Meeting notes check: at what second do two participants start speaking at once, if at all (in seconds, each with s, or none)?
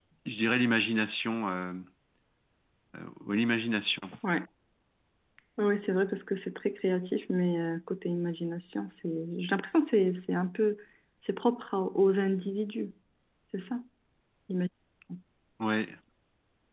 none